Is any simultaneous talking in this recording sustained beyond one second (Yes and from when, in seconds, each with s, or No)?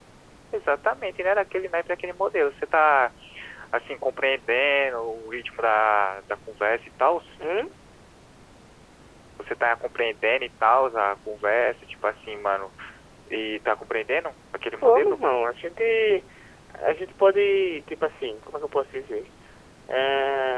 No